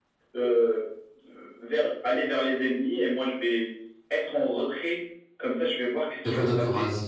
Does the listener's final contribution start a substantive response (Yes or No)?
Yes